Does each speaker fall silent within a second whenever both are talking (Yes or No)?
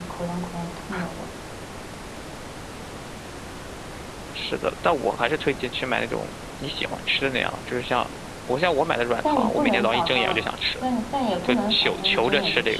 No